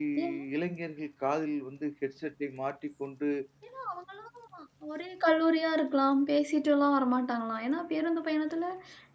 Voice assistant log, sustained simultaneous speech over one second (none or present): none